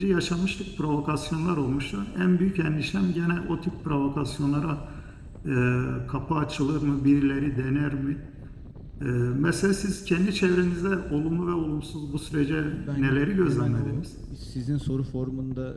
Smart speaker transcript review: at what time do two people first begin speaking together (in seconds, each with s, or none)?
12.6 s